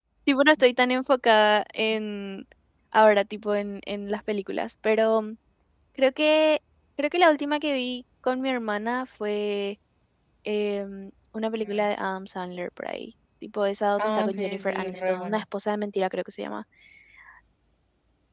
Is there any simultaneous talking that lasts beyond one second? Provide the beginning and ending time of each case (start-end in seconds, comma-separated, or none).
14.0-15.4